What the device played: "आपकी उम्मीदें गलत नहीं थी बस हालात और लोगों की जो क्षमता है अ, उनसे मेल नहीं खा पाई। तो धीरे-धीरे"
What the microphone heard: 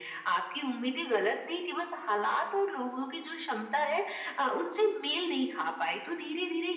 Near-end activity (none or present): none